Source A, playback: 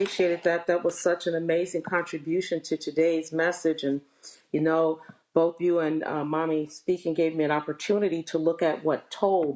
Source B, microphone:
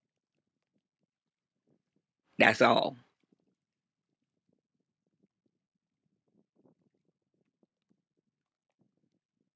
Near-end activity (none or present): present